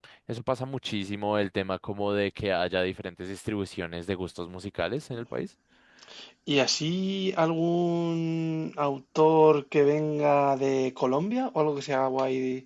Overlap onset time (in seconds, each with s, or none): none